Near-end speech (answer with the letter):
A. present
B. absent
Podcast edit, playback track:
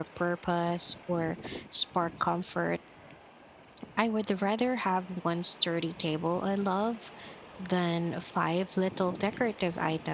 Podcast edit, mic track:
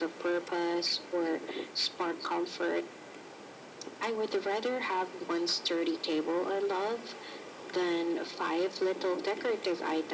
B